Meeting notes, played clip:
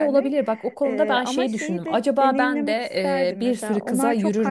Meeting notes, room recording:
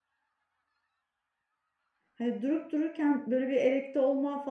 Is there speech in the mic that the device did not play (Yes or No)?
Yes